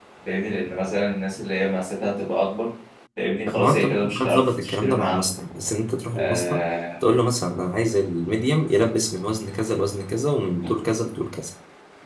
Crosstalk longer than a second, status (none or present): present